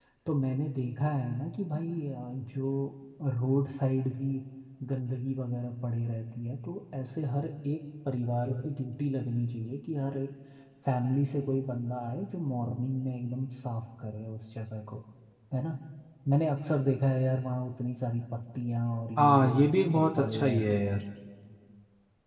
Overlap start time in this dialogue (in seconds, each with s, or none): 19.2 s